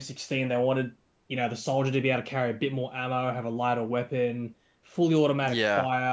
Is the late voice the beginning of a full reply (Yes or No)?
No